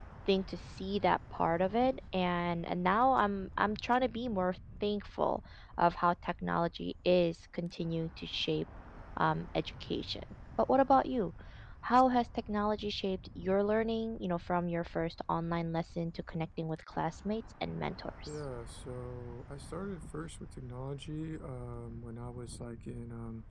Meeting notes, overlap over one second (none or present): none